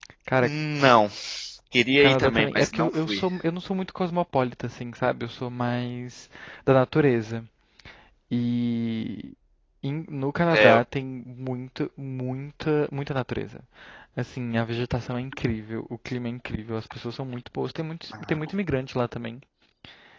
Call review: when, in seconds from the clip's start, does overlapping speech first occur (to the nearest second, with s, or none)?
2 s